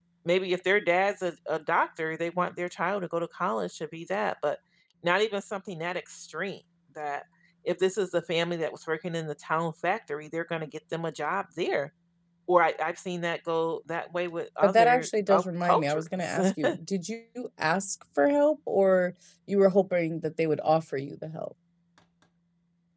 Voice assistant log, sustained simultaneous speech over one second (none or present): present